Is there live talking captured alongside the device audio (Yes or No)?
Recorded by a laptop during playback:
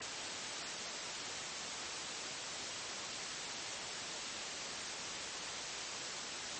No